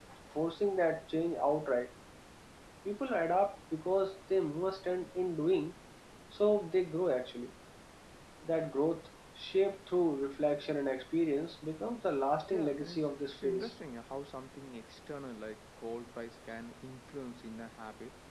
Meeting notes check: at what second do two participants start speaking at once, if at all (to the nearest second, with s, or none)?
13 s